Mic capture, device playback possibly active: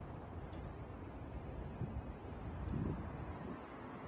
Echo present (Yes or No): No